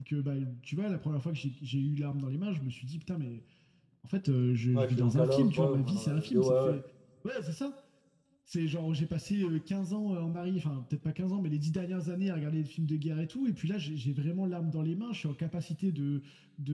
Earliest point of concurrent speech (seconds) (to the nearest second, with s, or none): 5 s